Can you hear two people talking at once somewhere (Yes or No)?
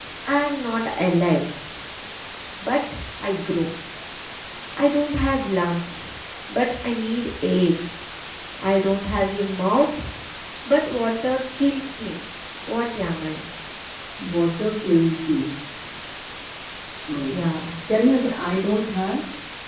No